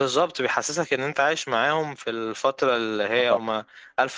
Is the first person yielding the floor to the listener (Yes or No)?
No